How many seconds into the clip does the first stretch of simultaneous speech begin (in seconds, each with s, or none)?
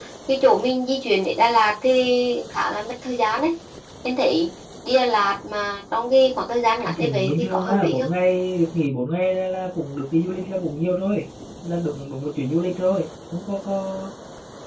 6.8 s